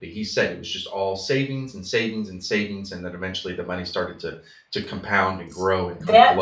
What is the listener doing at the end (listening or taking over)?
taking over